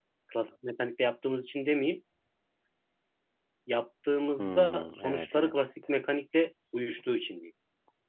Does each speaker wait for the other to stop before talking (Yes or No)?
No